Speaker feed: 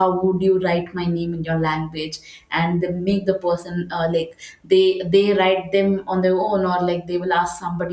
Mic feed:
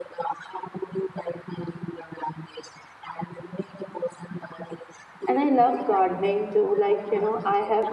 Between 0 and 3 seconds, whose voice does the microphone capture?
echo only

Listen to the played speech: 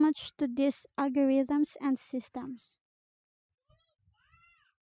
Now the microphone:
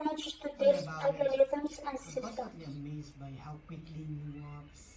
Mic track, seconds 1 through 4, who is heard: both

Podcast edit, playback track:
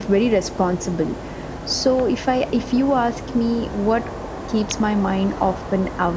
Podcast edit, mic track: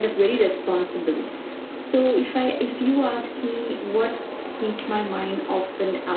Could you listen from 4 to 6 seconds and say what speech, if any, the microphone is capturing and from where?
echo only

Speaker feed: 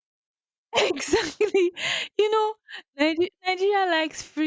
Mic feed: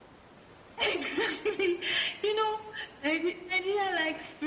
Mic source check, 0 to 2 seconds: echo only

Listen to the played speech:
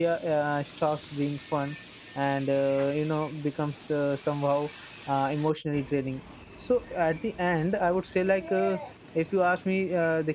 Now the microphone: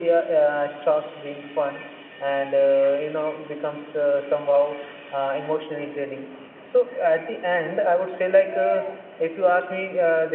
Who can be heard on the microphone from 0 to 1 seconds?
echo only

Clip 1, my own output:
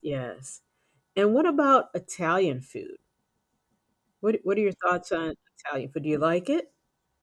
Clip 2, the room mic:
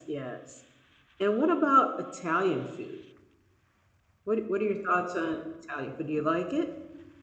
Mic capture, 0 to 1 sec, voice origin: echo only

